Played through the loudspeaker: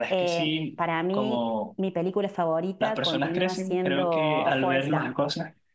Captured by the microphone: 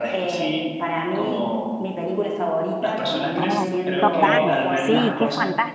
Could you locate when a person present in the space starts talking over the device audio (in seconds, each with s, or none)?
3.4 s